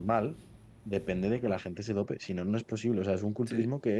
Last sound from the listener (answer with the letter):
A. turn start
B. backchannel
B